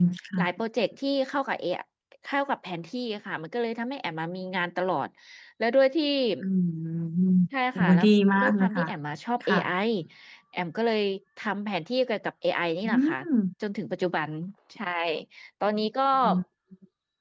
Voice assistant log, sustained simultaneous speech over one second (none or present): none